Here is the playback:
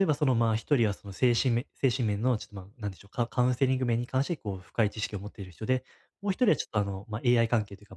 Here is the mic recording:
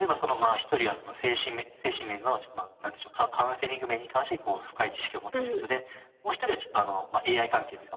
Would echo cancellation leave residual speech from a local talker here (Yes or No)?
Yes